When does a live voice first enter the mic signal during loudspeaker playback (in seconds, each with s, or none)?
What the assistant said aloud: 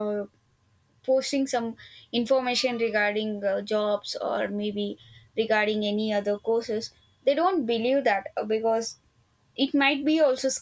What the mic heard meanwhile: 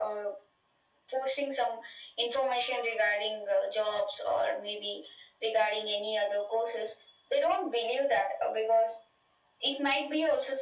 none